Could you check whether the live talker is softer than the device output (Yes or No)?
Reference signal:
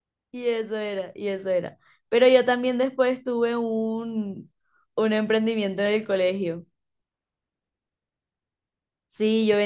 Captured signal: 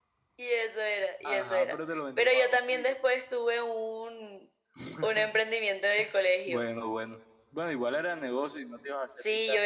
Yes